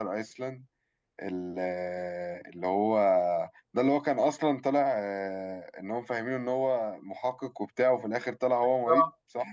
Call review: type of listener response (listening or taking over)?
taking over